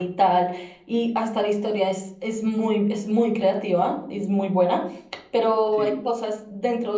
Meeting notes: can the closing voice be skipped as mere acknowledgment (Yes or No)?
Yes